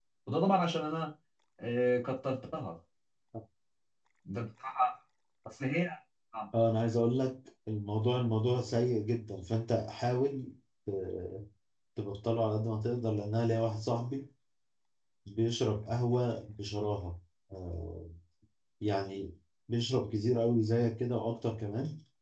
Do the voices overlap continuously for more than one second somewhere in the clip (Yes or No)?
No